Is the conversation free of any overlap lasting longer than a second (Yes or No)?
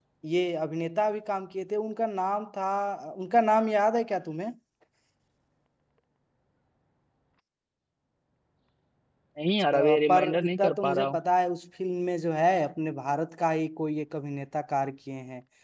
No